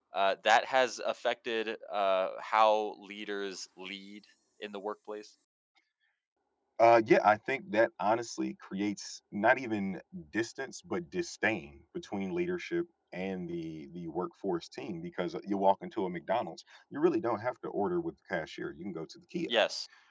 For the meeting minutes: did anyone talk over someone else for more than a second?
No

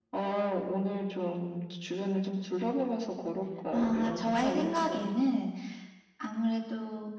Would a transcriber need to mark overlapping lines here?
Yes, from 3.7 s

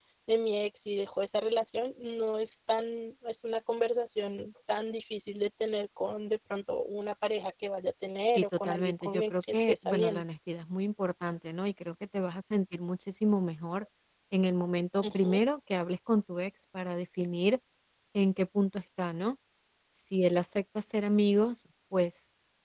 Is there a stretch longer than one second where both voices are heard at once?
Yes, from 8.4 s

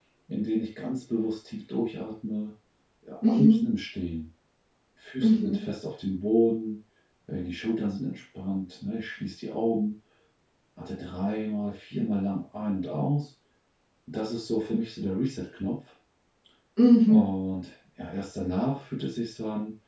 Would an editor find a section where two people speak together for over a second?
No

